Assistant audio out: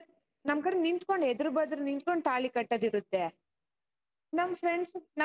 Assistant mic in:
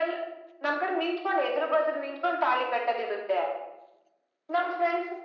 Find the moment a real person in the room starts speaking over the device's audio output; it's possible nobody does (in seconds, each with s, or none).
none